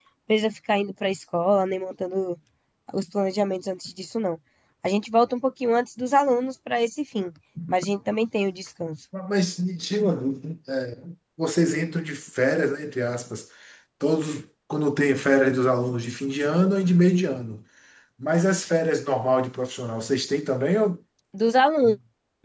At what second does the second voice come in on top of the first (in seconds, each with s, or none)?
none